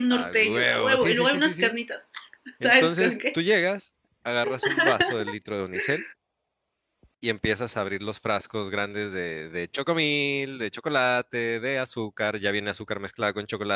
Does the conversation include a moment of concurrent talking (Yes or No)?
Yes